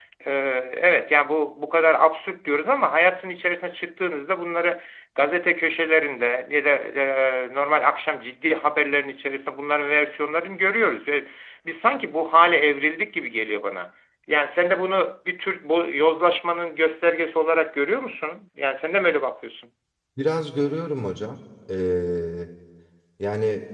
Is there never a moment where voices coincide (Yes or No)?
Yes